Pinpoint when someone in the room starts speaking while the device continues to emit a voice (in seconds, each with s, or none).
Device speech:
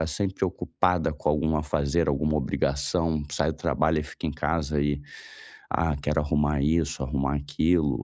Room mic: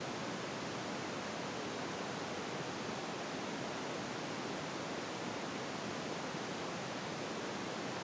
none